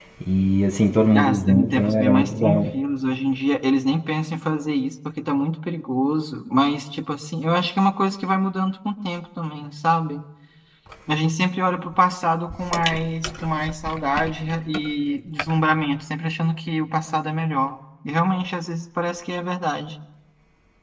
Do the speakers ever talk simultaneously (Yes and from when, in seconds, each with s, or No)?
Yes, from 1.1 s